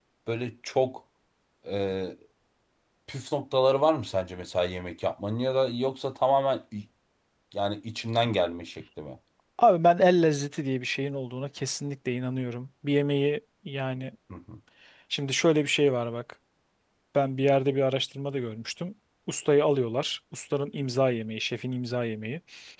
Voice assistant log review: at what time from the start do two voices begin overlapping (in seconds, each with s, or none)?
none